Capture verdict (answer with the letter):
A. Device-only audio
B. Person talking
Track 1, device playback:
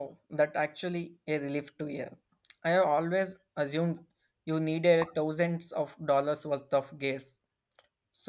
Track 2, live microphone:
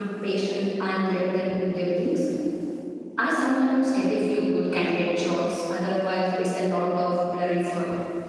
B